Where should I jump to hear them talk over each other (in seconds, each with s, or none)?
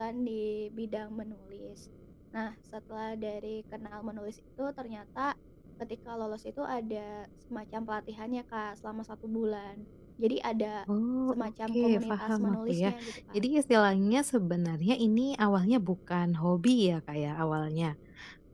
11.3 s